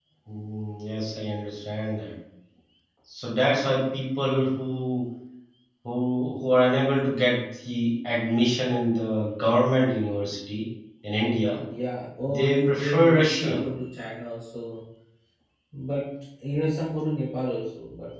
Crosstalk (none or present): present